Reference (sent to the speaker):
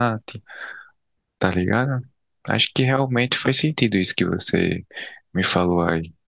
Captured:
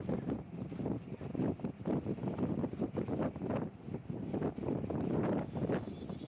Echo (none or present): none